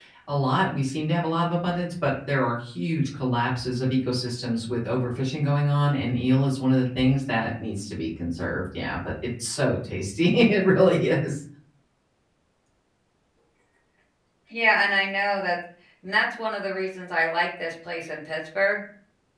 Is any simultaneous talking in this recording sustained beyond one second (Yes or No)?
No